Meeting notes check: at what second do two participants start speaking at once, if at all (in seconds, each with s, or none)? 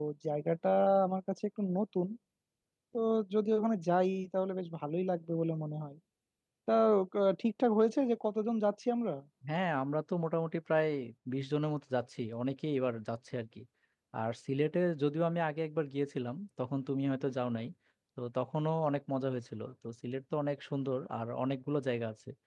none